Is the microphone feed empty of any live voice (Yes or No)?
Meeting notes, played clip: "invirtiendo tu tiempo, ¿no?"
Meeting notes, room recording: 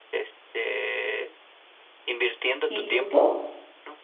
No